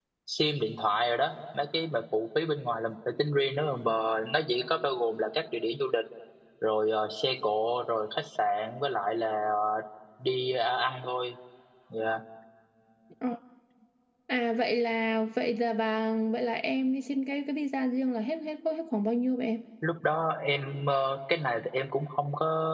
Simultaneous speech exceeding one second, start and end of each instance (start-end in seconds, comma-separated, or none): none